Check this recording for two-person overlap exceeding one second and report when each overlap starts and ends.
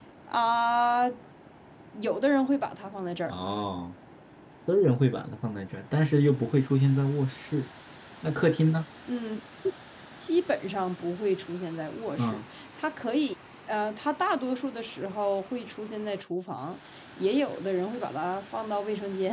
none

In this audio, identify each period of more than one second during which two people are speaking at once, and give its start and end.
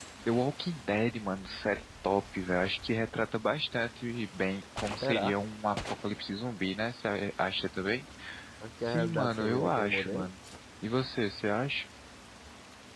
8.8-10.3

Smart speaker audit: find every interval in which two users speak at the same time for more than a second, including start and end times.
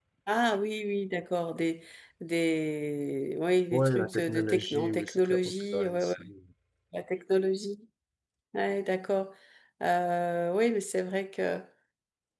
3.7-6.1

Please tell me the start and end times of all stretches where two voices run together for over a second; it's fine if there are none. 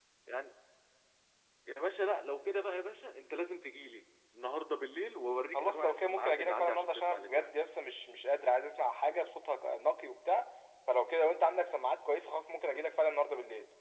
5.5-7.5

